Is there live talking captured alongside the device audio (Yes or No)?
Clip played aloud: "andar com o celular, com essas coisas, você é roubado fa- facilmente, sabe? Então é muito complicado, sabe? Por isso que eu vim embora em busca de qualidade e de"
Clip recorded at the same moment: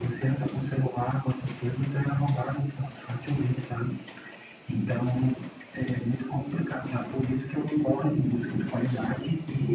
No